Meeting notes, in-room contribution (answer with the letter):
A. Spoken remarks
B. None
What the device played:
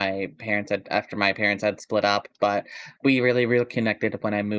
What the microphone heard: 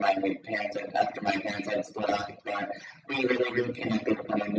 B